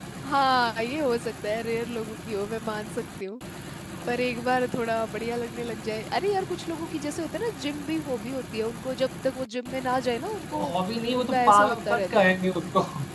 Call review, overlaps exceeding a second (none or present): present